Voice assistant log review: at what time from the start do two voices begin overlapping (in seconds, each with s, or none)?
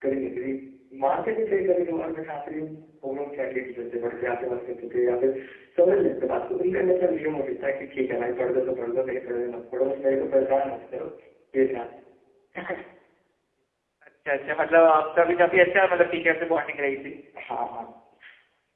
none